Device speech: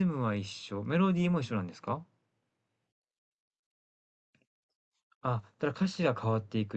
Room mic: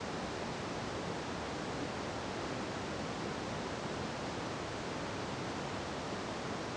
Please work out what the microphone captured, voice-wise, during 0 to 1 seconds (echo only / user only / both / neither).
neither